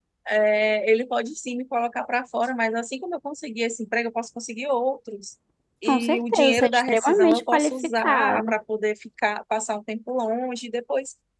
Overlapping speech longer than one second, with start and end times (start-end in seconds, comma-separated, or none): 5.9-8.5